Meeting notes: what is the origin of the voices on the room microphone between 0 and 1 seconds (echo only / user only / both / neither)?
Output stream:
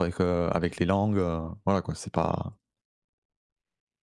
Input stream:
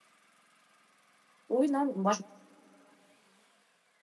neither